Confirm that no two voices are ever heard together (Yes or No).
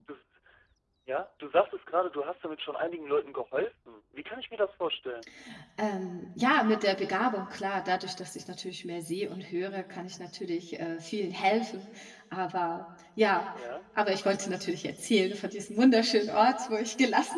Yes